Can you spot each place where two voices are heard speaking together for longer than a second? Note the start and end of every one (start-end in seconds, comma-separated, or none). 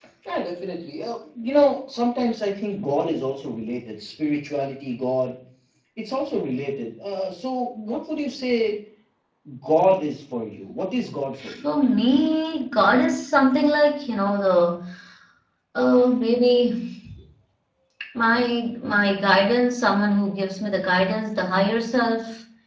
none